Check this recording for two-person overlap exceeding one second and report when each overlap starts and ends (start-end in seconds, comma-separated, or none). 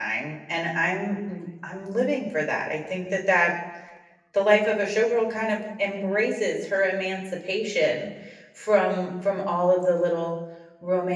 none